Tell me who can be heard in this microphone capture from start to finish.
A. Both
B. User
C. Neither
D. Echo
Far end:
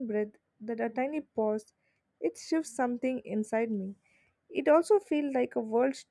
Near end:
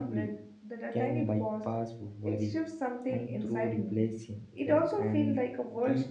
A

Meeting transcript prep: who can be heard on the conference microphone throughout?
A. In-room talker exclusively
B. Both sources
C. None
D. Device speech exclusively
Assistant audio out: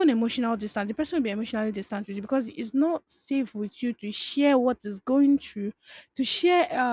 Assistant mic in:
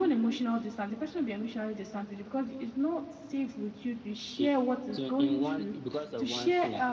B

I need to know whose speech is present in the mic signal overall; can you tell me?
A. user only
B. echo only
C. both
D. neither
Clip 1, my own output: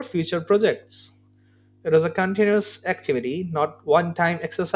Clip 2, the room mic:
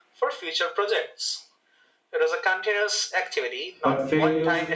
C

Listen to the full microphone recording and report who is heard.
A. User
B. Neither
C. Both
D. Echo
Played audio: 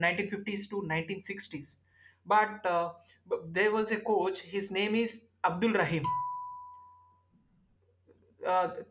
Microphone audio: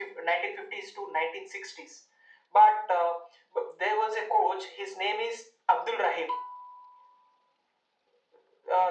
D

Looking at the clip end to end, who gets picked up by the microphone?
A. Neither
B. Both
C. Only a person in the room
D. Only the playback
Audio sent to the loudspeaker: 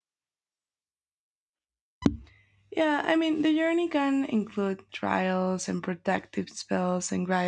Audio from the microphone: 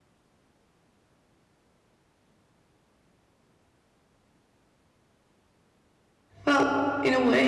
C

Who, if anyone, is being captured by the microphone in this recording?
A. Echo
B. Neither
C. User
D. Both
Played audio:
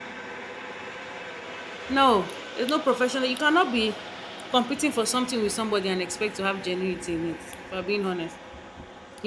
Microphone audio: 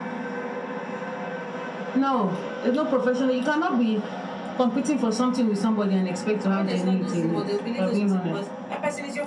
D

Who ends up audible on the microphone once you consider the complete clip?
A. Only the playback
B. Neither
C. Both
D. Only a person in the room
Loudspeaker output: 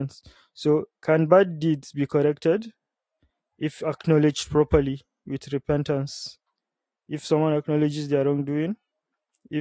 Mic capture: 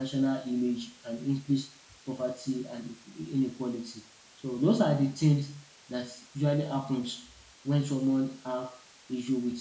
D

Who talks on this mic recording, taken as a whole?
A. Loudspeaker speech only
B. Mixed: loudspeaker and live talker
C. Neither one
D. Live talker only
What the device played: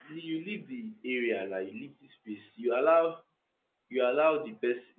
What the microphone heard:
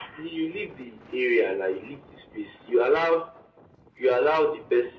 A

